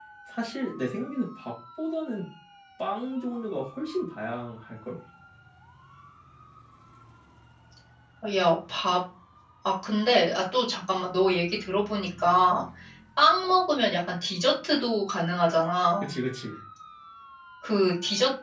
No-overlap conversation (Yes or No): Yes